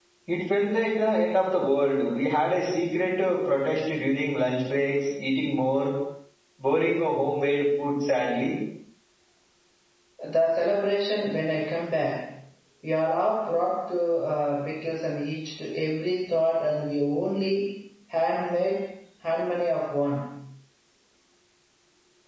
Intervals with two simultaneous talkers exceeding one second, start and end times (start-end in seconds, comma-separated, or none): none